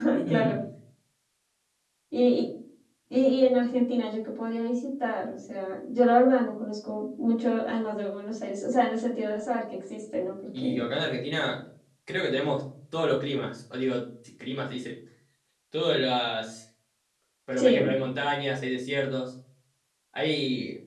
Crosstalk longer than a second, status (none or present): none